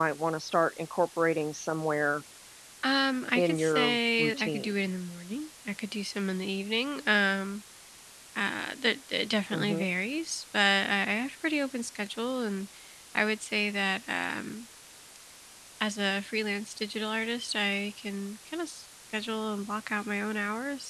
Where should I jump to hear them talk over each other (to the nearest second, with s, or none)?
3 s